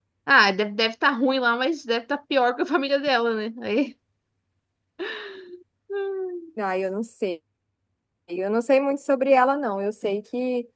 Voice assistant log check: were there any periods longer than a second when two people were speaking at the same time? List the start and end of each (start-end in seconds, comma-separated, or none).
none